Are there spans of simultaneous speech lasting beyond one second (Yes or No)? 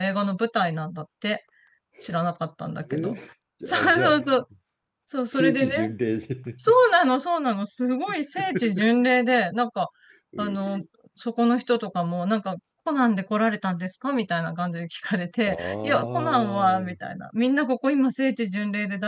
Yes